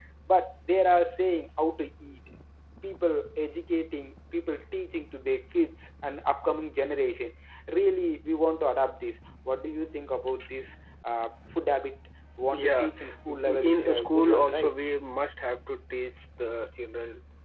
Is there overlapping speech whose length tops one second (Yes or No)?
Yes